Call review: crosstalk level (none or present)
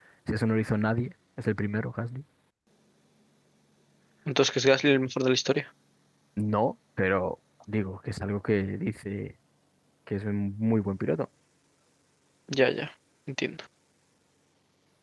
none